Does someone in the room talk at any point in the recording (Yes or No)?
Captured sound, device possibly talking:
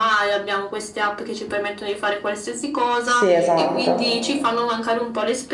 Yes